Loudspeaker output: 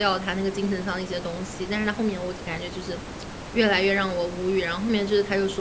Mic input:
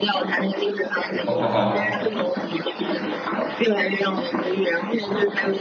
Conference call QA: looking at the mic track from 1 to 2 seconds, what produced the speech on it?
both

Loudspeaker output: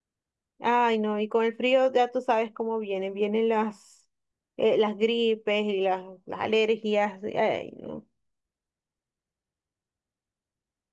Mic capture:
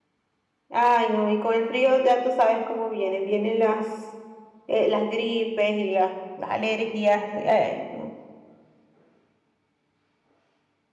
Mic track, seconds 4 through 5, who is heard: echo only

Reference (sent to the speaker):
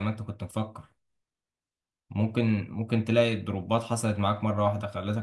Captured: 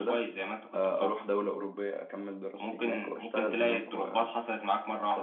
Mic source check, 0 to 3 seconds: both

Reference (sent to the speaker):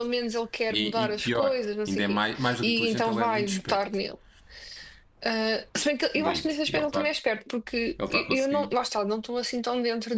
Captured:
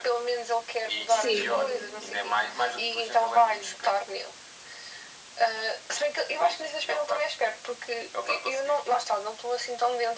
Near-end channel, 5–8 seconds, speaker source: echo only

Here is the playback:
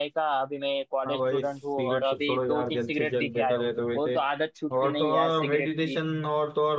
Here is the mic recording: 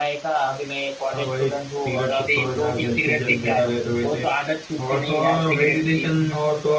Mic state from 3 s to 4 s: echo only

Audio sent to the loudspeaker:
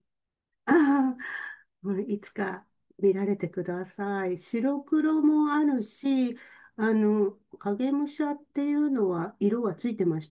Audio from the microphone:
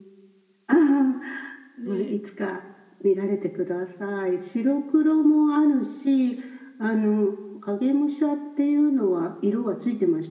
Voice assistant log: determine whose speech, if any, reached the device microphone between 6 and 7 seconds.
echo only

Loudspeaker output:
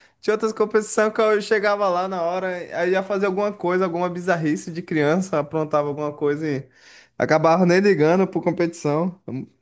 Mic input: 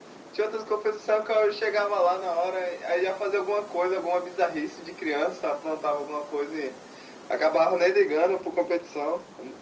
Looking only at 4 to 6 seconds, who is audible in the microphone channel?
echo only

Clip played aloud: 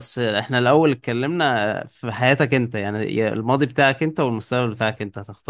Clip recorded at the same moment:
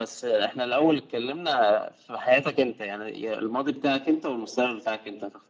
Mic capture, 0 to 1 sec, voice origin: echo only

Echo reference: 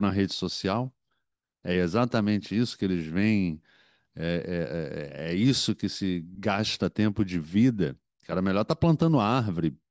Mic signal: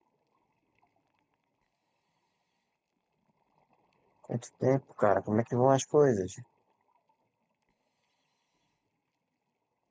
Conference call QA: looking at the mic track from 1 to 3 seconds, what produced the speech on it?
neither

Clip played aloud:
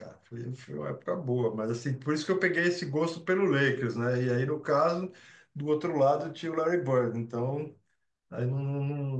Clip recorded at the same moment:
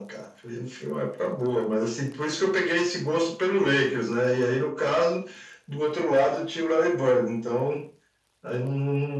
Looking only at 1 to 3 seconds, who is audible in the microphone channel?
echo only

